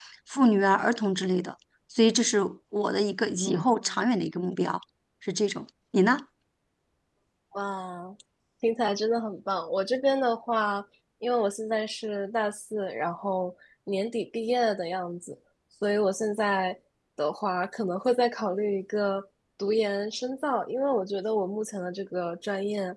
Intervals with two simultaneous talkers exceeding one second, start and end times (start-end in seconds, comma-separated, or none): none